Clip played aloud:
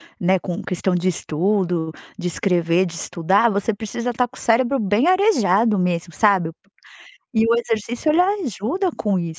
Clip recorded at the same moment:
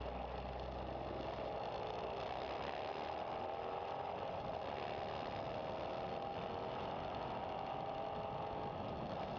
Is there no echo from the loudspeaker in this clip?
Yes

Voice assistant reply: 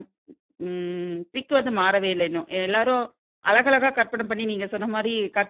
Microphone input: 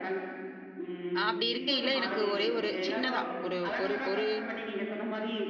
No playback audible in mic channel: No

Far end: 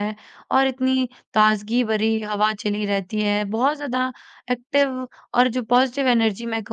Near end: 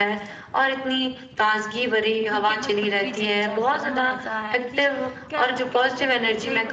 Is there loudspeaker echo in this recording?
Yes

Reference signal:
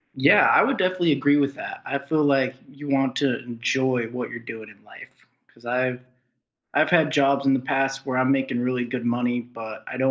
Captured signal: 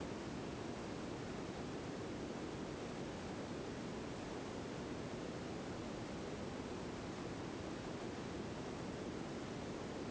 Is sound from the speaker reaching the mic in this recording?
No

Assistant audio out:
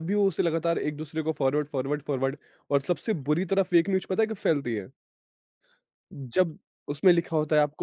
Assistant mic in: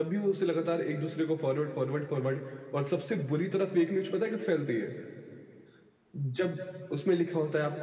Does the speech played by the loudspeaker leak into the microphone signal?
Yes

